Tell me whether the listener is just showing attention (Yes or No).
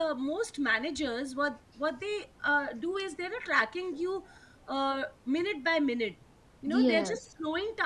Yes